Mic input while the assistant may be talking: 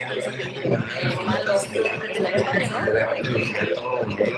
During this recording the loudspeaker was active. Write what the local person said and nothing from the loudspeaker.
eh, malo. Estaría padre, ¿no?

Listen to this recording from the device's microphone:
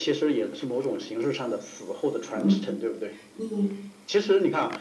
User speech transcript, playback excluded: 嗯，你，

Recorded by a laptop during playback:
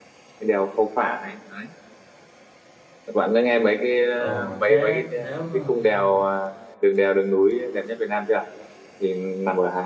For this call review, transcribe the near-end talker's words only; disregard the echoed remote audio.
ờ thế nếu mà mà-

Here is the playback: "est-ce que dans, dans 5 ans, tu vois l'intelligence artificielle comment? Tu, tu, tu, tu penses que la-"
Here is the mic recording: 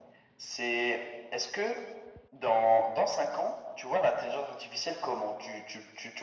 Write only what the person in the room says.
none

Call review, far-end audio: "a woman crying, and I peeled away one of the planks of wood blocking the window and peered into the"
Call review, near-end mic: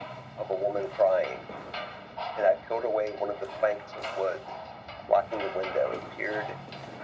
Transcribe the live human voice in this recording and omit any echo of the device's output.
none

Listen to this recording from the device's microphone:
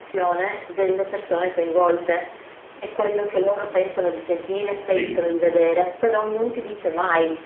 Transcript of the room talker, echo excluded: sì,

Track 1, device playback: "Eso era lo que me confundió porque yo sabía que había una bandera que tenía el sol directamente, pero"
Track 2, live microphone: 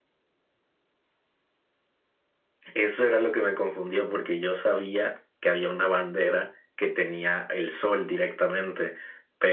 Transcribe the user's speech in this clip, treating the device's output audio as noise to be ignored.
none

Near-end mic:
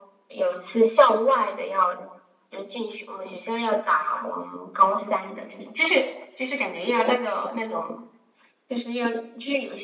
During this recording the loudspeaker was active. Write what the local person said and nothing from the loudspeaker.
none

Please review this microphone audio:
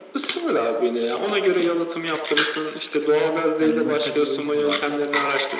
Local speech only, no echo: Yani bizim müstakil evimiz vardı.

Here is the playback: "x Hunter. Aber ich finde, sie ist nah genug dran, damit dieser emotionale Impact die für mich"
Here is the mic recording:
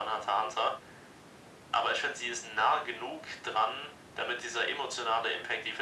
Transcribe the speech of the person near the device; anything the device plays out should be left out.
none

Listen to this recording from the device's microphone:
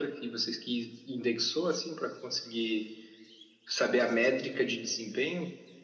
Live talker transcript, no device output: none

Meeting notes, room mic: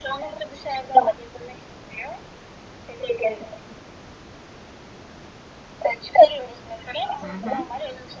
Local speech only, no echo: hı hı.

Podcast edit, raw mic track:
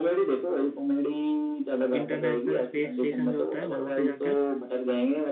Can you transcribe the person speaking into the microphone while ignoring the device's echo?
इंटरनेशनल स्पेस स्टेशन जो होता है वहाँ पे जाकर

